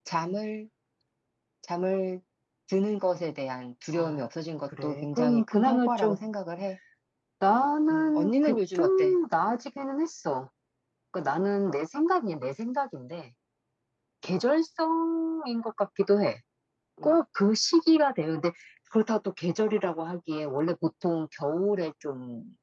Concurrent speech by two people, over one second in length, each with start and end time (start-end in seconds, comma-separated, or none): 4.8-6.2, 7.9-9.2